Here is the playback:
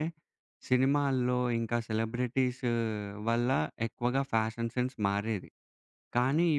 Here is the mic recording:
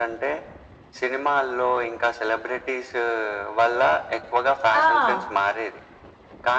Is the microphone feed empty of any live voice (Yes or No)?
No